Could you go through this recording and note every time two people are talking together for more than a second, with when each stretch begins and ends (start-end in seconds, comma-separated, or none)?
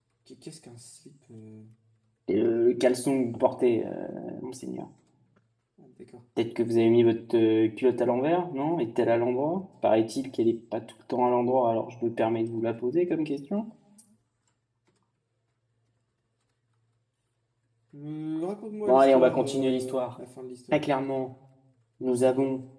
18.9-20.1